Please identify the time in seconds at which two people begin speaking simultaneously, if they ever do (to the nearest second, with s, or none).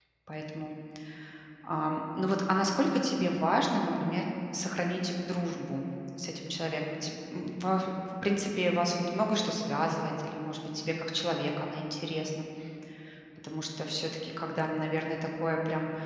none